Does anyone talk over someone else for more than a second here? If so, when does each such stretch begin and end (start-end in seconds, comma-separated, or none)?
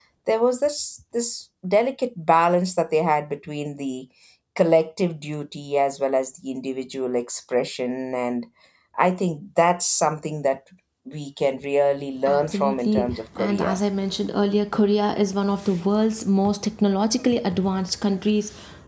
12.3-13.8